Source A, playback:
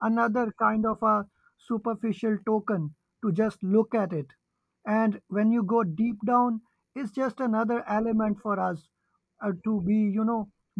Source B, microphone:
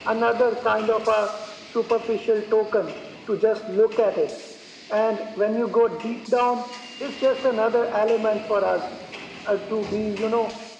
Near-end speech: none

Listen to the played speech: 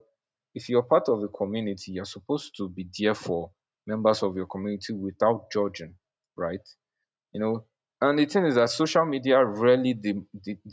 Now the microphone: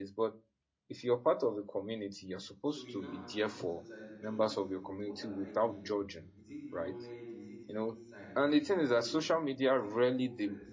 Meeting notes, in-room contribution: present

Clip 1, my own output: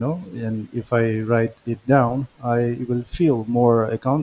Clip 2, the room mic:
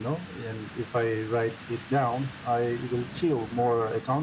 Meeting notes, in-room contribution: none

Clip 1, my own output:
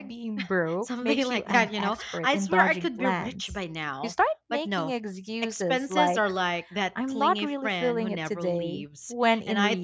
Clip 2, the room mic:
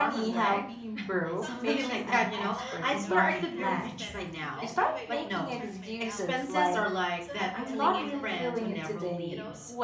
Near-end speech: present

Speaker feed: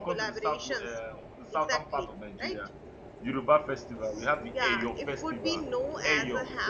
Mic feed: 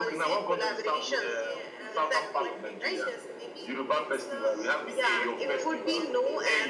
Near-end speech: present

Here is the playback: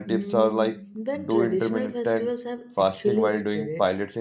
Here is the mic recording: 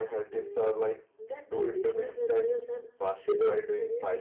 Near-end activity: none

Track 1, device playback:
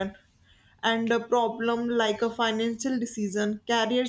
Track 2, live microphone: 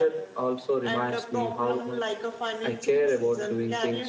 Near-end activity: present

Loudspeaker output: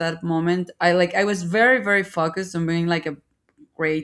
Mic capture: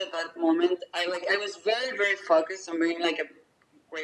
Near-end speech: none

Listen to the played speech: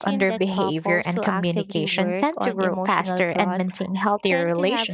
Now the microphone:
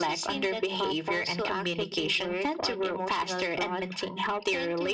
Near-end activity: none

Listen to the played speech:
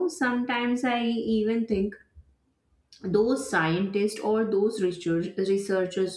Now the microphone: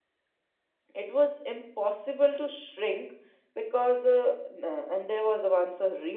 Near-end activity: present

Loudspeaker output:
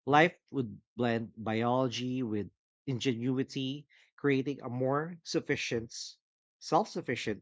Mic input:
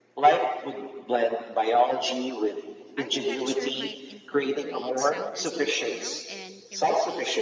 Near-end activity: present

